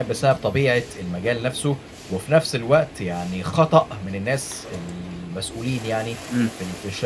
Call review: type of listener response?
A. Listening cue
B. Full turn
A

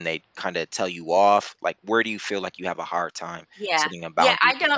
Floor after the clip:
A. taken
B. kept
A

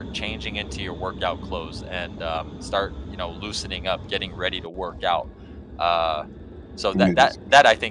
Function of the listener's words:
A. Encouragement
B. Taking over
A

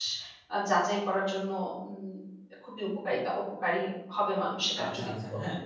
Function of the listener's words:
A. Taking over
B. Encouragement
A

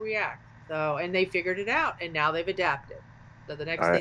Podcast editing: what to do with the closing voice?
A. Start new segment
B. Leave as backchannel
B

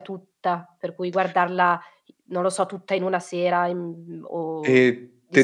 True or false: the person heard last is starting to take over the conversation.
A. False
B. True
B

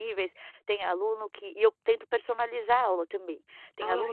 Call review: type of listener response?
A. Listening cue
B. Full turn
A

